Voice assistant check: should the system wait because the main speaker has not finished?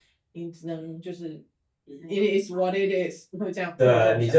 No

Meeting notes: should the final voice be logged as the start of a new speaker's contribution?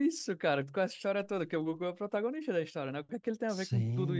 Yes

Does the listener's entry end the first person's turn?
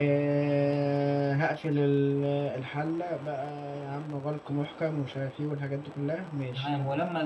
Yes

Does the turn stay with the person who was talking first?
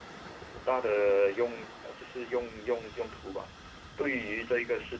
Yes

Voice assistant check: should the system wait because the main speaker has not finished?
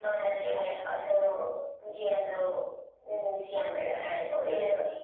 Yes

